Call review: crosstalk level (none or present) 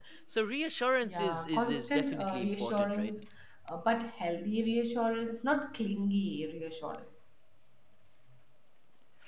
present